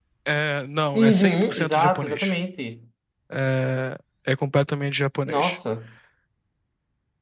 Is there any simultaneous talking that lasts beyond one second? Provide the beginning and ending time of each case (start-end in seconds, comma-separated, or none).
0.9-2.3